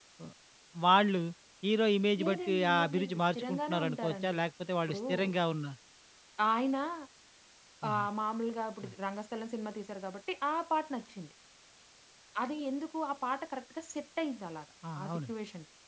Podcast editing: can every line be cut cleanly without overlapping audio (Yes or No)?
No